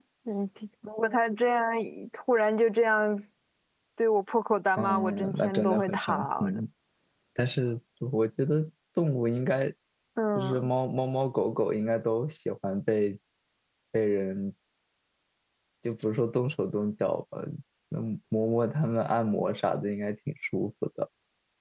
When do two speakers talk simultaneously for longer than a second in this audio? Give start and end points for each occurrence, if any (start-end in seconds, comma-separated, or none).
4.8-6.6